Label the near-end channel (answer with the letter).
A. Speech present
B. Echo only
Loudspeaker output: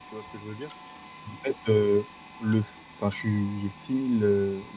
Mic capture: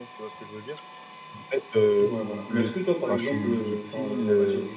A